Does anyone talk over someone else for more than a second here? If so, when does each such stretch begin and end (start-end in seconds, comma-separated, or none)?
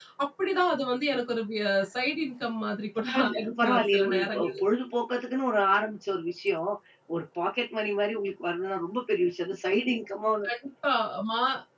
3.1-4.5